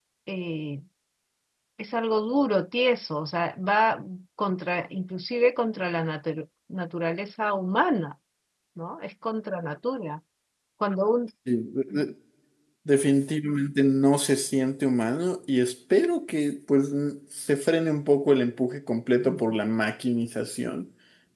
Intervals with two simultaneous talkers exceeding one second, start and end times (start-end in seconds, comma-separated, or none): none